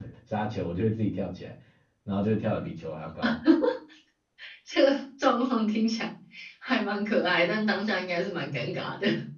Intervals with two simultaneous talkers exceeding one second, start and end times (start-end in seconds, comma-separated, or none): none